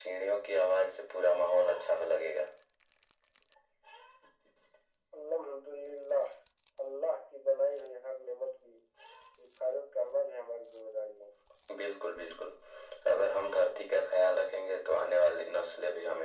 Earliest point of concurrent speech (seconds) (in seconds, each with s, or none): none